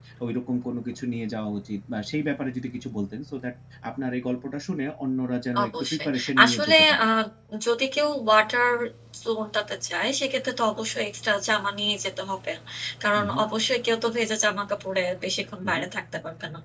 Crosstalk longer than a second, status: present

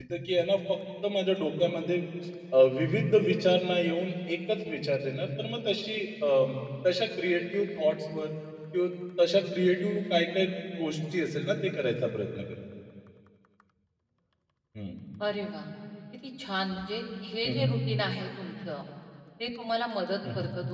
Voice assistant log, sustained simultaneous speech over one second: none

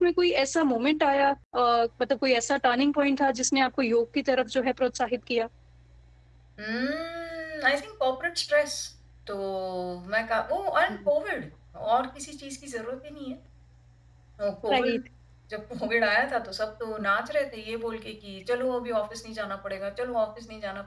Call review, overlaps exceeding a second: none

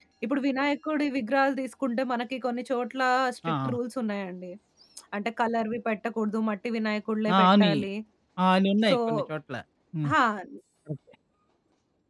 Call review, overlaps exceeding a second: none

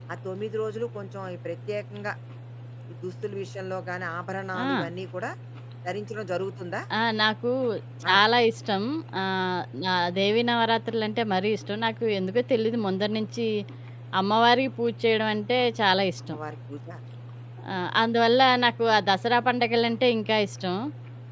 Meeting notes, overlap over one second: none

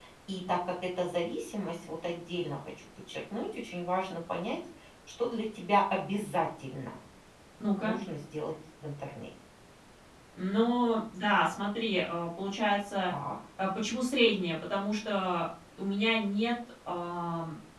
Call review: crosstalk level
none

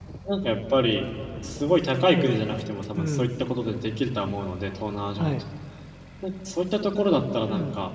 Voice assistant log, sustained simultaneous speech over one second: present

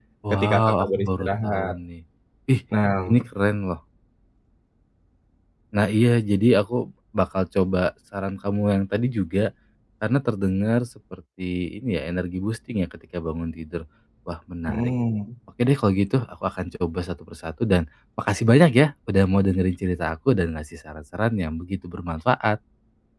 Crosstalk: present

